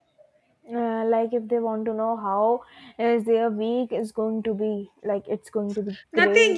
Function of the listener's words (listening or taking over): taking over